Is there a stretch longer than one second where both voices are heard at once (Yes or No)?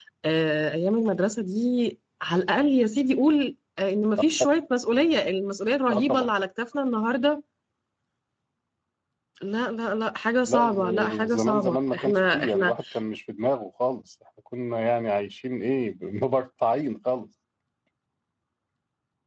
Yes